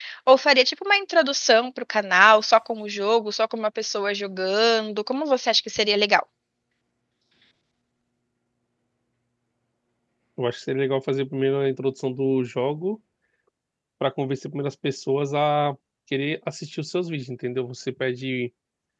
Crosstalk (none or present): none